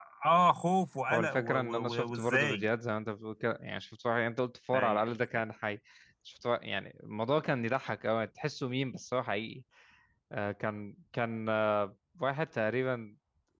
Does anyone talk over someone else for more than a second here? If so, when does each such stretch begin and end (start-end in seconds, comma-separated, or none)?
1.1-2.6